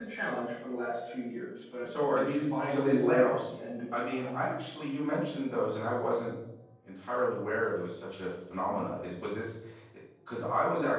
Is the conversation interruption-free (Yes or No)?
No